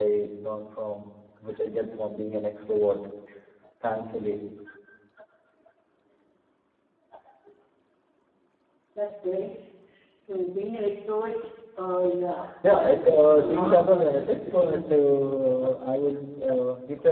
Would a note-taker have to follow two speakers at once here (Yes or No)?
Yes